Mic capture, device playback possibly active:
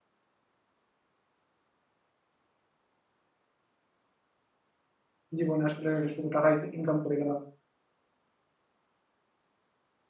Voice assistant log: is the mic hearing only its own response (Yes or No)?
No